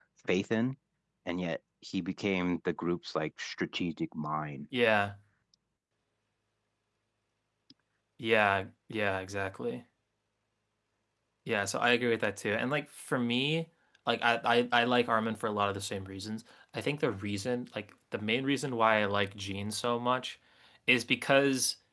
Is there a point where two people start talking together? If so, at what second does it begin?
none

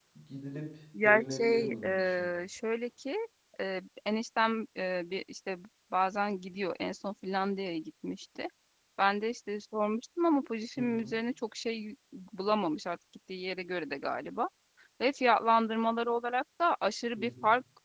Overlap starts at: 1.0 s

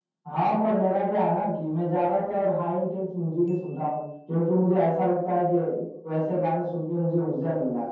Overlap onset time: none

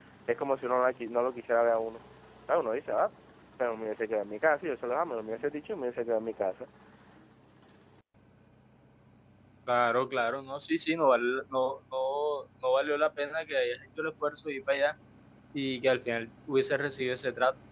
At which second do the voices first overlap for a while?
none

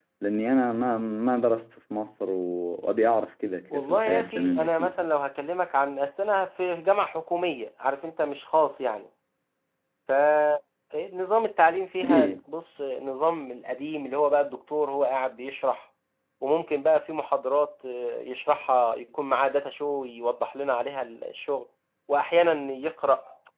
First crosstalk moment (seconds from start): 3.7 s

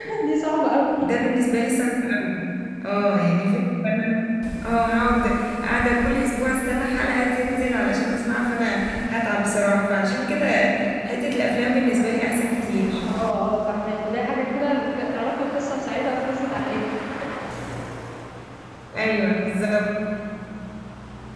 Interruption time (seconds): none

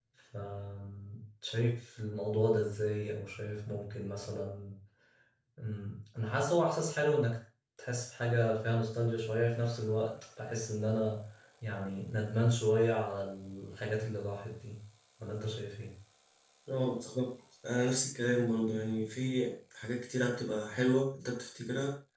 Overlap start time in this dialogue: none

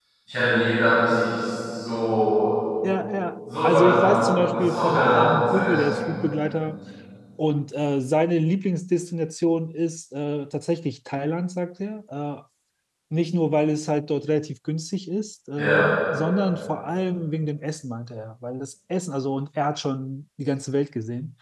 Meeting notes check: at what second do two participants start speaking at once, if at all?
3.6 s

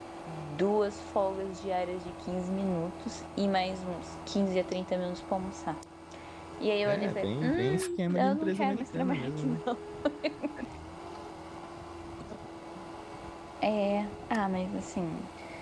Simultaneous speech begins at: 6.8 s

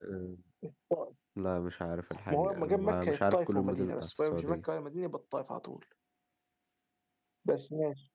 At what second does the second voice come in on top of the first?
2.3 s

